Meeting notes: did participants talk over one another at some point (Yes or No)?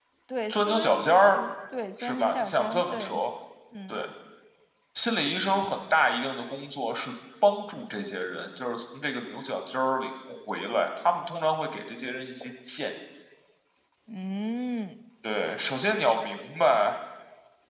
Yes